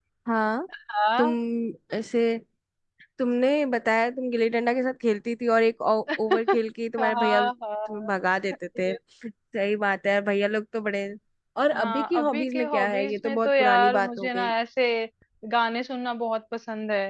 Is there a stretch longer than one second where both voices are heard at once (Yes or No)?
Yes